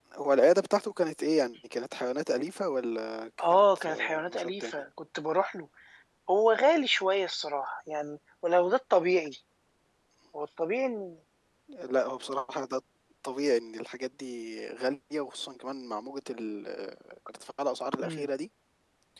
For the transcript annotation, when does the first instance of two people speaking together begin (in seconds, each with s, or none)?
3.5 s